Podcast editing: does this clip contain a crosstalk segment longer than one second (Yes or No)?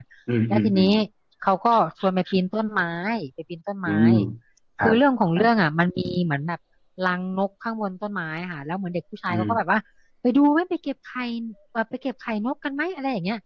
No